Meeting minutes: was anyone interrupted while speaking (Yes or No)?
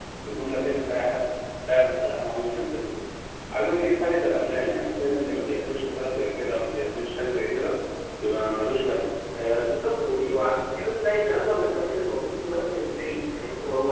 No